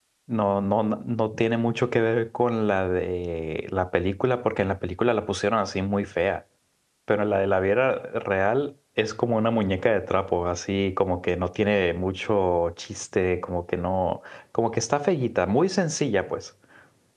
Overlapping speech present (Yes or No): No